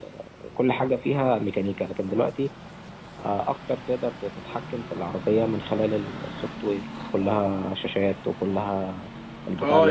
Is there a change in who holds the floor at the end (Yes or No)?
No